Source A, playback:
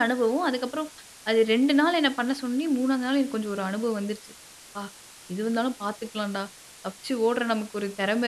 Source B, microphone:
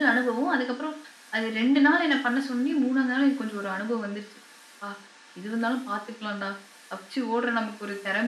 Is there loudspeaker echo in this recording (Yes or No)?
Yes